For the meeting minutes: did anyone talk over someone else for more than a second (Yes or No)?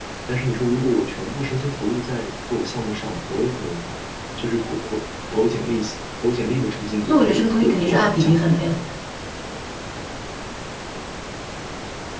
Yes